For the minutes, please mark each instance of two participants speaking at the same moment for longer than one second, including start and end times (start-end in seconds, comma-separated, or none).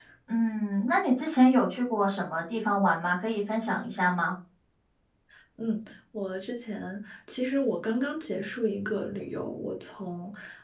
none